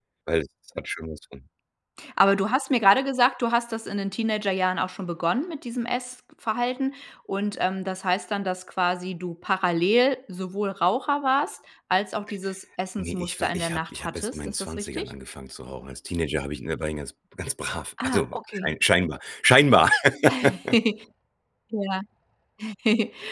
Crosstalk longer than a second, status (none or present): present